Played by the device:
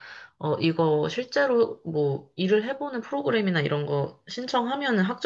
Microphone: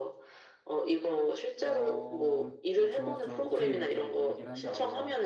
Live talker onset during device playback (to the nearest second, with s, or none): 2 s